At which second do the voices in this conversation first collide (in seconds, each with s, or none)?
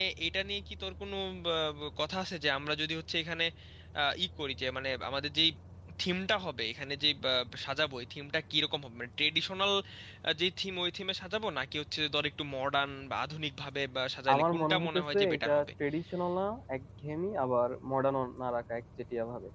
14.3 s